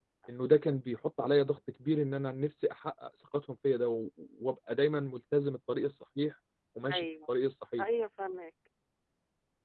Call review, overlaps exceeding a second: none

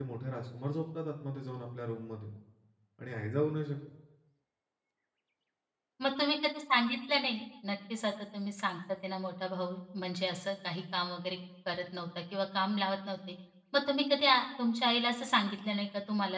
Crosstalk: none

